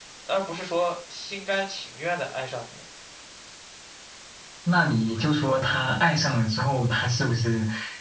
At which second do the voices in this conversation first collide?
none

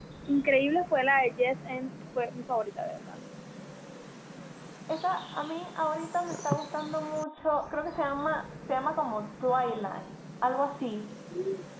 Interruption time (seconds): none

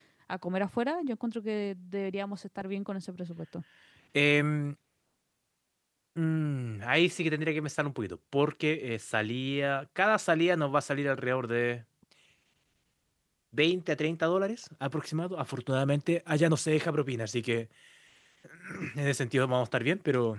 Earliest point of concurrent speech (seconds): none

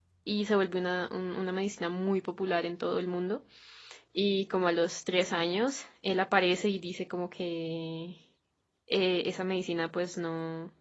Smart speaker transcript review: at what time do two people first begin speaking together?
none

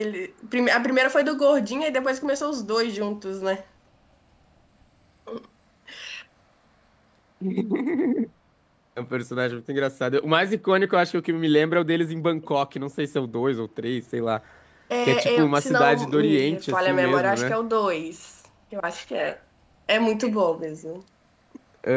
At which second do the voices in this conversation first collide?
15.0 s

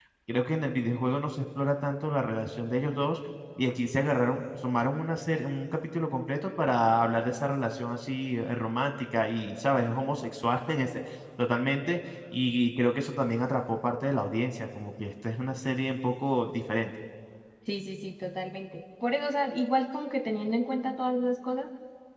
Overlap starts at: none

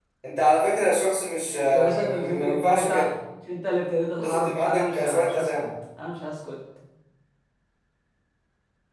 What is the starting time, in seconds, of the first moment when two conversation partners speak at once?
1.7 s

